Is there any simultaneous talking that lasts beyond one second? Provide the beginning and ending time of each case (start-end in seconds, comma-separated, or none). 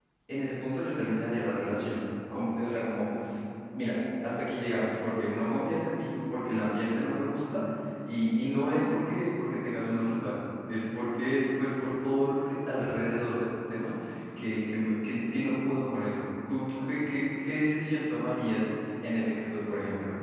none